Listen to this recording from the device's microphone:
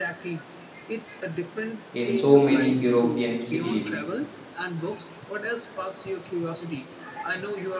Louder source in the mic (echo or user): user